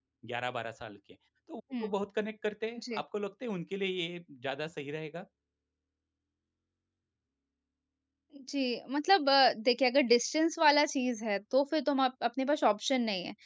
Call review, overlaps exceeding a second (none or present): none